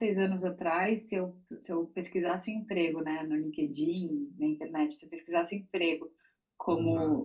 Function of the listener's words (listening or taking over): listening